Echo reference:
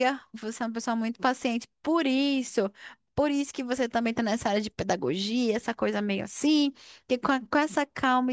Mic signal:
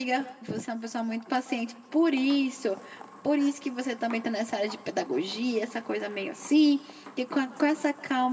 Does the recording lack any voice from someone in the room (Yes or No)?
Yes